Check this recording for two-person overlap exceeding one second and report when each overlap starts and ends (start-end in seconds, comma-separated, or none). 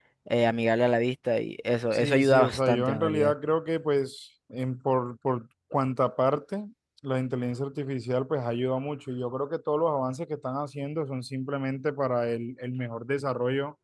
1.9-3.3